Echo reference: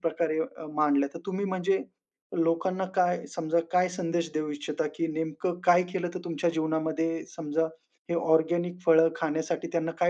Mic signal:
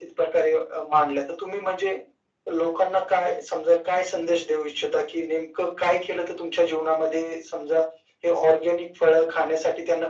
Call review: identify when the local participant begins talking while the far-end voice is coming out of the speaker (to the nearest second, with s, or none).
none